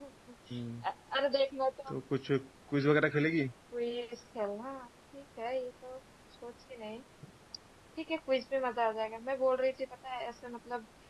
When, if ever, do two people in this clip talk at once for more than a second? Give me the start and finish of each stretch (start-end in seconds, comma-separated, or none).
none